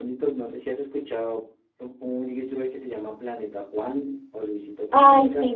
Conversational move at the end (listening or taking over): taking over